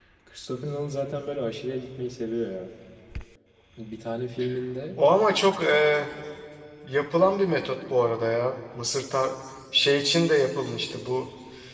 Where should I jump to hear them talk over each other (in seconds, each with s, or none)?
none